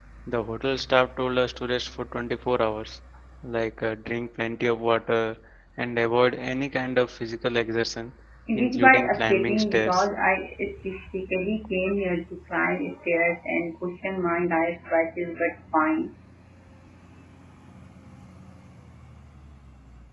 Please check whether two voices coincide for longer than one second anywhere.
Yes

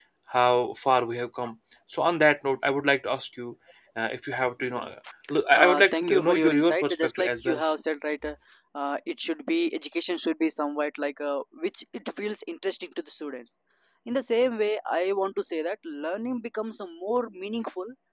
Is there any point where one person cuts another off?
Yes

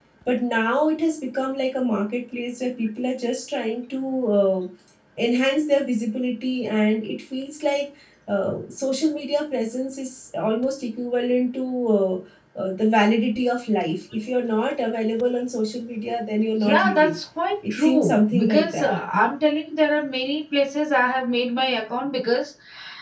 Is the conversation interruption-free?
No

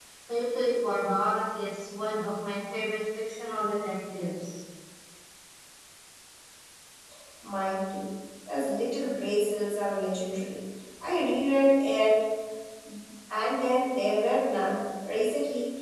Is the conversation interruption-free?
Yes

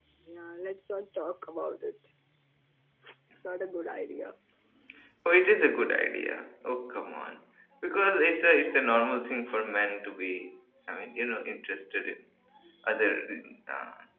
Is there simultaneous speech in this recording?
No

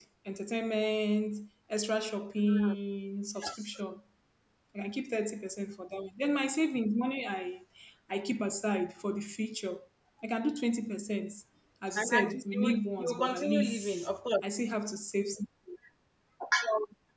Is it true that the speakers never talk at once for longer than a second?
No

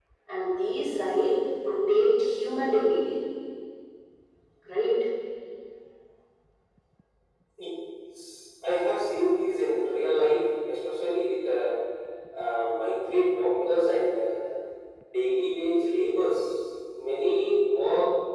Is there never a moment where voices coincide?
Yes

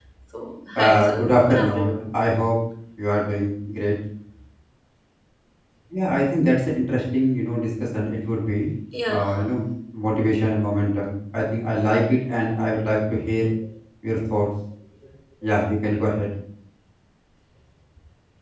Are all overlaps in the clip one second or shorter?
No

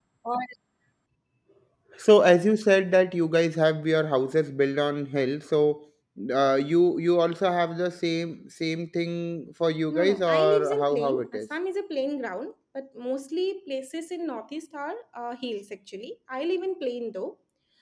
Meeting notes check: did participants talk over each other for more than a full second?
Yes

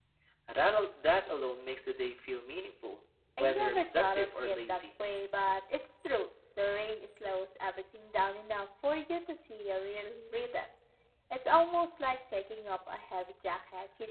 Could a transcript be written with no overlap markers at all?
No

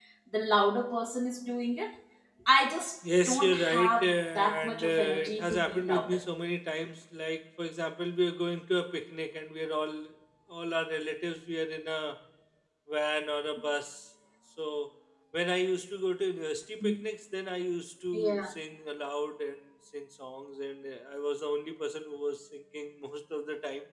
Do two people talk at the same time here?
Yes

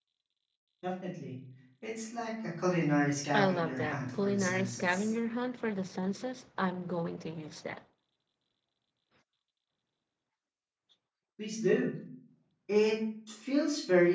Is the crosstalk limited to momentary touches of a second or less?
No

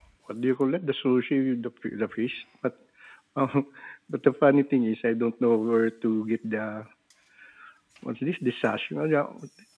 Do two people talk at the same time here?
No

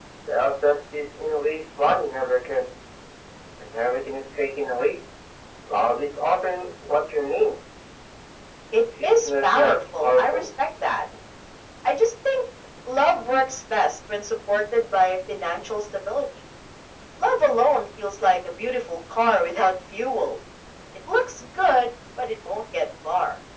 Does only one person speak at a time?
No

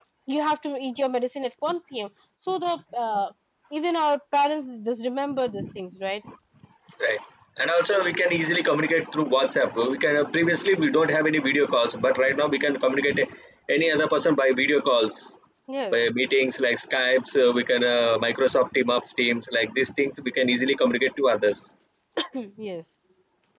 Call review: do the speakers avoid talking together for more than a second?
Yes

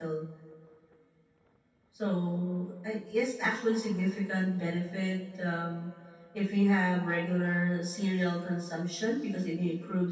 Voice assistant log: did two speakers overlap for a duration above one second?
No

